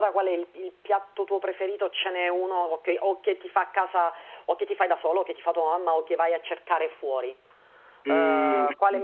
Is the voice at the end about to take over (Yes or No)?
Yes